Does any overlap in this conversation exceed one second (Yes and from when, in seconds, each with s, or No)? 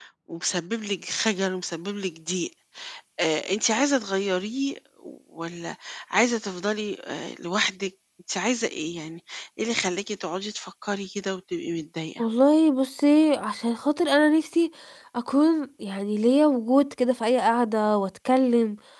No